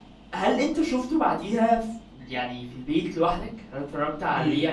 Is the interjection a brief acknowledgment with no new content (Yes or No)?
No